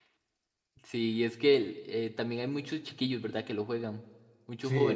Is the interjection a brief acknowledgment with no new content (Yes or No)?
No